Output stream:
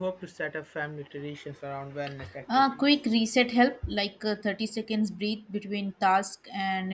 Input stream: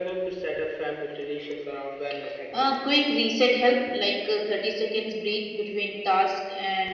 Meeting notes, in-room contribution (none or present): none